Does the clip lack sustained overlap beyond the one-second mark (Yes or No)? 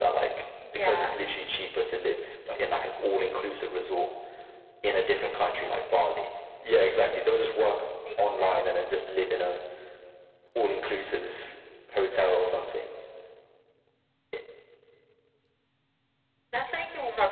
Yes